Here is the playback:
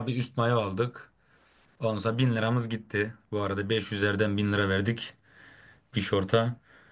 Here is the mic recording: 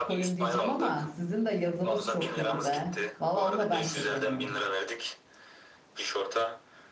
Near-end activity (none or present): present